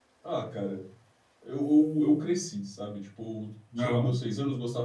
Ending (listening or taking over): listening